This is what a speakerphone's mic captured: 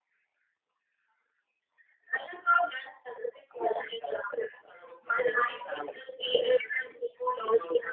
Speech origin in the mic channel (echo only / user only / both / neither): echo only